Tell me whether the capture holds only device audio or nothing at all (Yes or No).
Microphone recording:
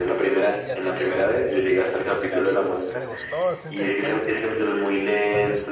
No